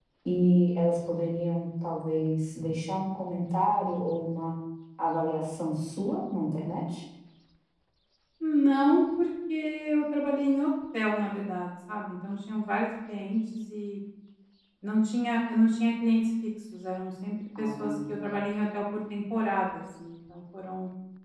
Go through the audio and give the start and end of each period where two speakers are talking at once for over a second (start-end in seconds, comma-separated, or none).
none